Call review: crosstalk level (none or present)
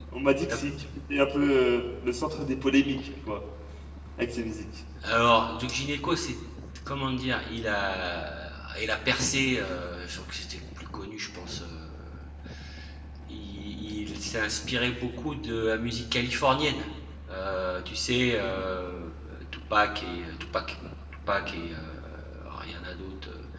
none